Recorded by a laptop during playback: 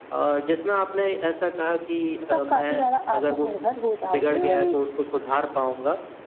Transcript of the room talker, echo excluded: तो आप काफ़ी ज़्यादा आत्मनिर्भर हो जाओगे और एक

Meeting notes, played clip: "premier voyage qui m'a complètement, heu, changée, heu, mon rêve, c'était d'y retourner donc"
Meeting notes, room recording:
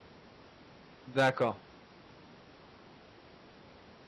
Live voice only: d'accord,

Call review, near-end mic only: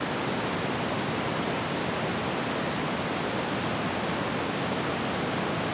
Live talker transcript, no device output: none

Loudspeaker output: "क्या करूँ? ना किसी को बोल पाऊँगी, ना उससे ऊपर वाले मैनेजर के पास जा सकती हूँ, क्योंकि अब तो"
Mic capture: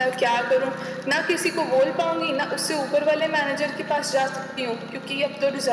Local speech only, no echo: none

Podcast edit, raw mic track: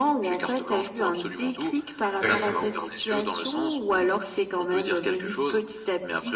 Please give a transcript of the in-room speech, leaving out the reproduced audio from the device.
Exact.

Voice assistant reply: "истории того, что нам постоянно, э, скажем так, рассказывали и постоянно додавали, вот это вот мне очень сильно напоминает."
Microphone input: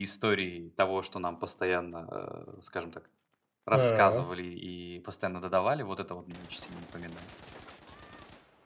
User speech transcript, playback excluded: М,

